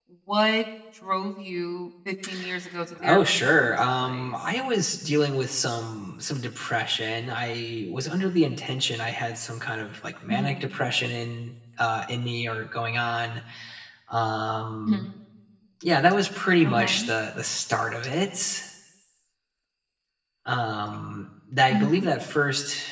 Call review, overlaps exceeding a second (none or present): present